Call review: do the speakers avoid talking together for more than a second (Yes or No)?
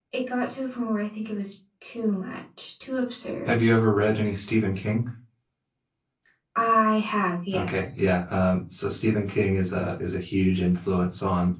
Yes